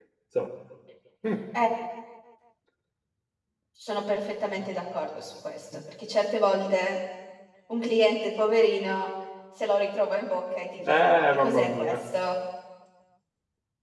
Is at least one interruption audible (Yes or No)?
Yes